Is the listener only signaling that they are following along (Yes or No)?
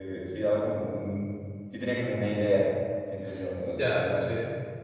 No